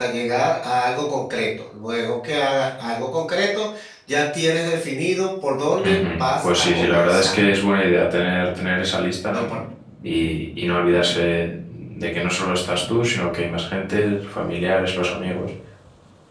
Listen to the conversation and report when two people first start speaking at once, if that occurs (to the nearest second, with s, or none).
6 s